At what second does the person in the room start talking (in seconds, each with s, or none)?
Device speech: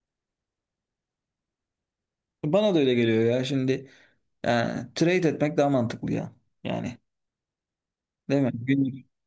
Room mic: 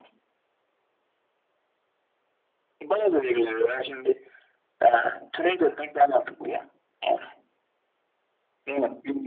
none